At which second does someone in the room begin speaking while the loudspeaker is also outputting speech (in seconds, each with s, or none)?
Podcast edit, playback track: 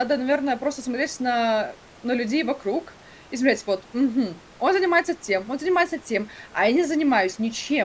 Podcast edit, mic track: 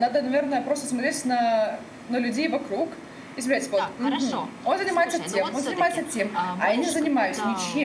3.8 s